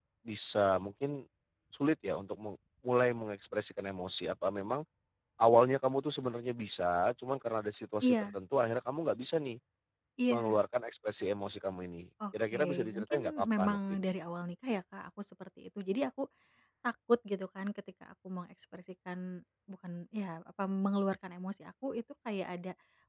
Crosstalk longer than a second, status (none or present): present